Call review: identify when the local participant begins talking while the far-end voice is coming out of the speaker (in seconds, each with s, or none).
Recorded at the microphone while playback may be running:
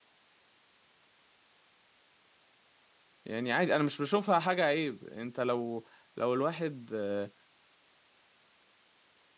3.2 s